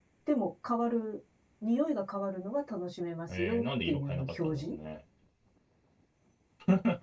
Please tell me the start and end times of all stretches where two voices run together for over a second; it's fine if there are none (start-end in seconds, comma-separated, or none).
3.3-4.7